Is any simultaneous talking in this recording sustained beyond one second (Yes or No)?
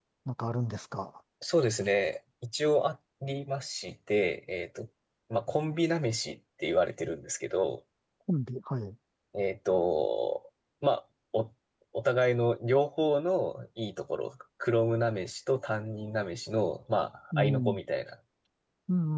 No